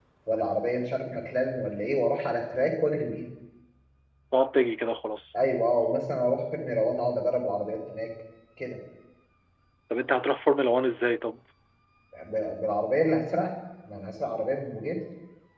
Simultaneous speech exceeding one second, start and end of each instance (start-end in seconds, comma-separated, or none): none